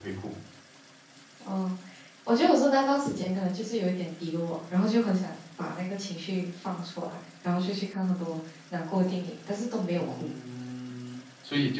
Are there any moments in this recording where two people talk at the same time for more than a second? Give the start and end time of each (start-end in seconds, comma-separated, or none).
none